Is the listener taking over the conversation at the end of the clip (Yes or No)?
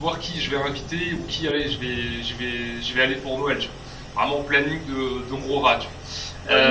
Yes